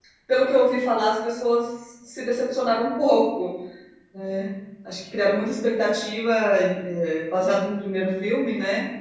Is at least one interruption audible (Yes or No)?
No